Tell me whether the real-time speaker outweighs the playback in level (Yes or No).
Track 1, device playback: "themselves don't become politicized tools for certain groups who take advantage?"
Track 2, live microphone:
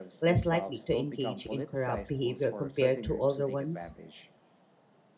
Yes